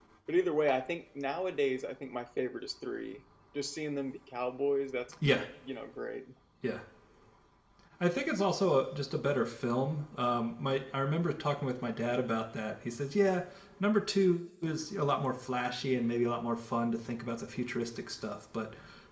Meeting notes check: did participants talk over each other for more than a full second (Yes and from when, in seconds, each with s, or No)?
No